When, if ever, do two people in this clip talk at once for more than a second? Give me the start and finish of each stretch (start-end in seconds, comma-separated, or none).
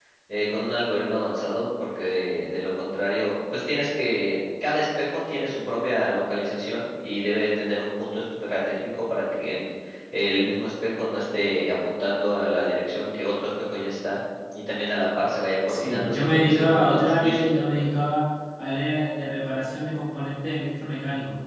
15.7-17.9